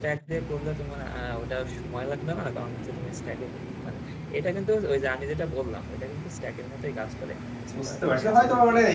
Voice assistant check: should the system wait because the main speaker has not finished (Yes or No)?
No